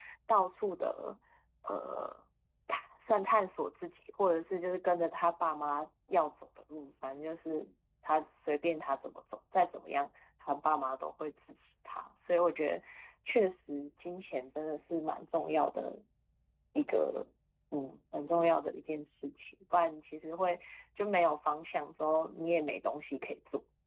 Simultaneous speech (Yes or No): No